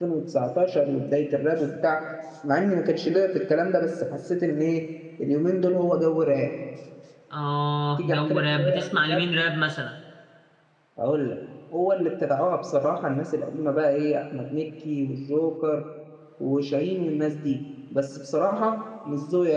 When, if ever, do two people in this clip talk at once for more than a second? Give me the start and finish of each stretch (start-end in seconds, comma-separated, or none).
8.0-9.2